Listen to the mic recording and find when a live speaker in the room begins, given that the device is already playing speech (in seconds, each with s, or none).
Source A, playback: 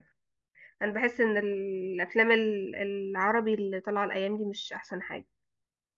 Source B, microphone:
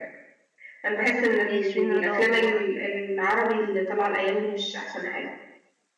1.4 s